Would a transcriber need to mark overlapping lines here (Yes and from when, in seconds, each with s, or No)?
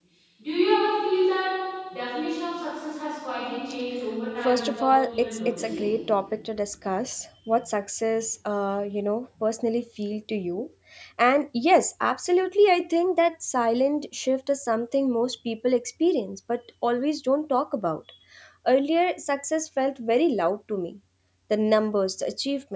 Yes, from 4.4 s